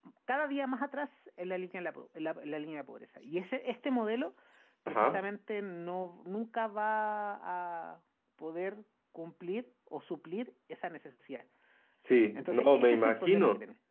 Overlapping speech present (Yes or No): Yes